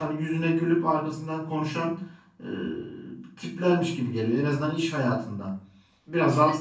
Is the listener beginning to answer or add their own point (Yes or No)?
No